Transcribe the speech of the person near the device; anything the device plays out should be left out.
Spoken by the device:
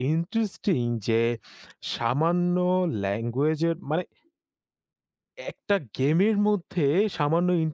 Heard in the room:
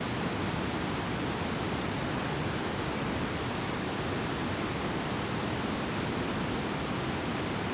none

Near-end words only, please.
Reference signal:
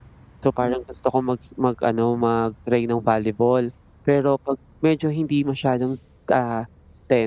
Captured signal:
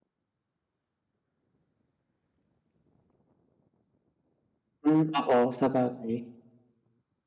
Hmm, oo, sabagay.

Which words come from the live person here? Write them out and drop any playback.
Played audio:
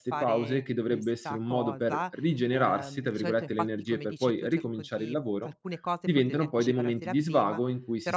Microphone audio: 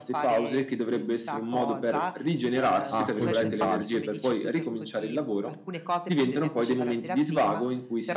a concentrarsi.

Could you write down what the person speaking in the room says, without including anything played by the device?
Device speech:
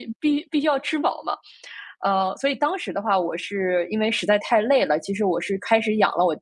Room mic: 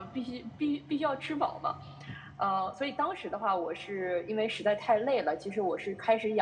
none

